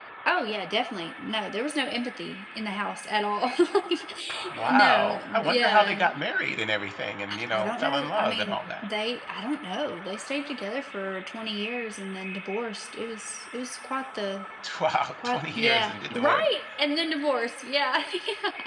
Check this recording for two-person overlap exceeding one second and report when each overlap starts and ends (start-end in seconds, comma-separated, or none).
4.6-6.0, 7.3-8.8, 15.2-16.4